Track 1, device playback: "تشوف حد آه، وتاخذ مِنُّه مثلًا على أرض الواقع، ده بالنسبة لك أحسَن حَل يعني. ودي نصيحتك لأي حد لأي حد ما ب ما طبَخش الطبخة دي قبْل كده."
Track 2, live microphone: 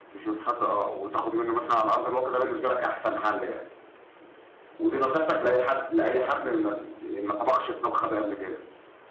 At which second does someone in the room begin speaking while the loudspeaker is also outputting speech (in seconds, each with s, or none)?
none